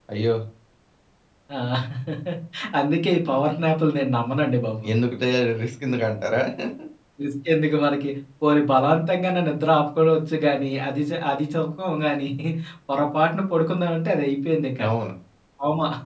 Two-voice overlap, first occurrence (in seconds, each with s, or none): none